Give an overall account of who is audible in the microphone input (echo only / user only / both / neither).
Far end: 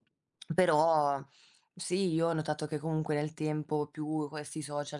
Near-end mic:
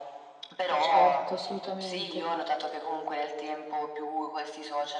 both